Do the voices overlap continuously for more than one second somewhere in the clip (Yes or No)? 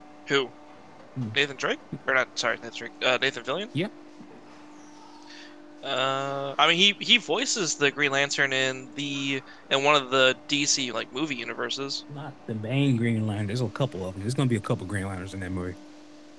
No